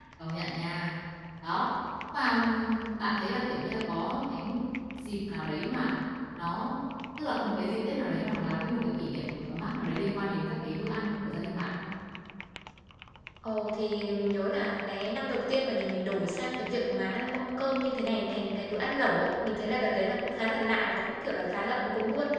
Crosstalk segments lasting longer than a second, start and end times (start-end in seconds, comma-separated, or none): none